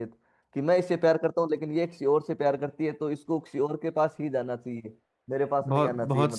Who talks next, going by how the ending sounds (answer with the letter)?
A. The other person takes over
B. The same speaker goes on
A